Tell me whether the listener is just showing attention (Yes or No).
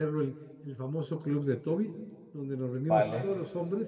Yes